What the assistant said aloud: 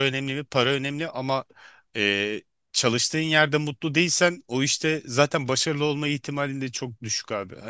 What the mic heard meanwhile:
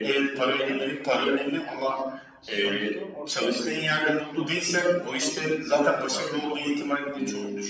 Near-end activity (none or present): present